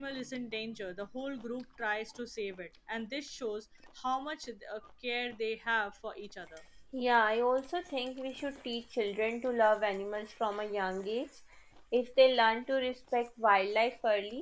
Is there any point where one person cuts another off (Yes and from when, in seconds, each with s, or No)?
No